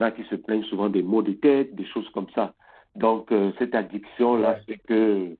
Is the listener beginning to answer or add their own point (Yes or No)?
No